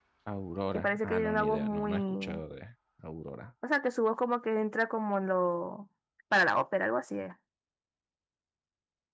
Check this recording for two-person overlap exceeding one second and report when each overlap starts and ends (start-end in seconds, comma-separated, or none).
0.7-2.4